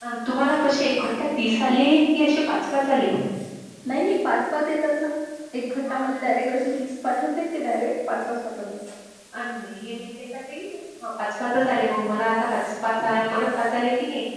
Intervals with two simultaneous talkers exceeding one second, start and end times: none

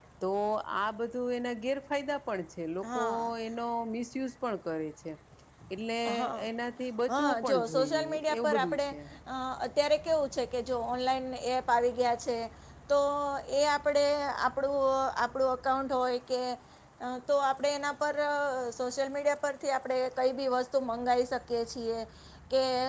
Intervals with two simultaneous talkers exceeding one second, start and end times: 7.1-8.8

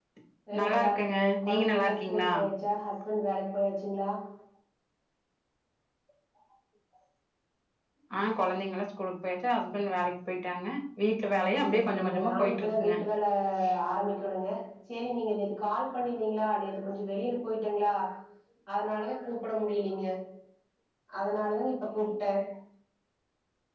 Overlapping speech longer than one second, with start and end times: 0.6-2.3, 11.6-12.9

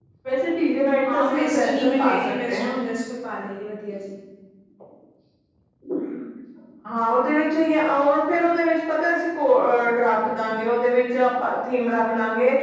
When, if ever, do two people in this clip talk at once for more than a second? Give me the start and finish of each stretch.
1.1-2.8

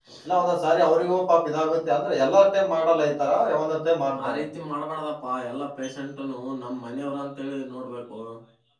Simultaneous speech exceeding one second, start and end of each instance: none

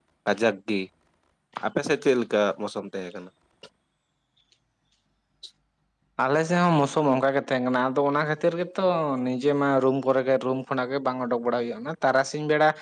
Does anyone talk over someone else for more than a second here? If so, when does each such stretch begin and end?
none

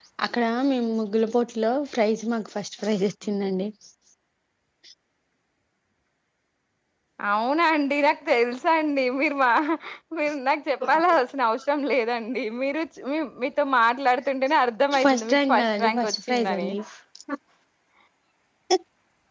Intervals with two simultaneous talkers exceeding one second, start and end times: 15.0-16.7

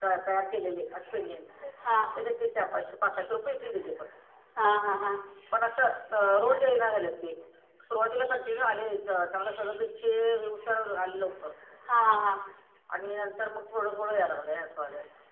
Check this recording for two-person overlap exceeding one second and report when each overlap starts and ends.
none

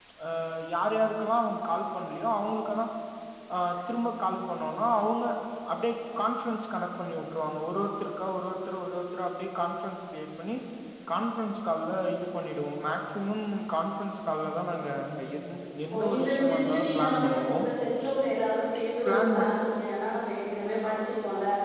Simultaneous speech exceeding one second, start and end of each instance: 15.9-17.6

